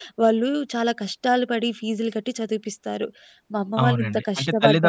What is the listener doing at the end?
taking over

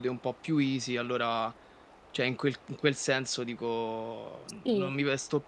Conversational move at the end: listening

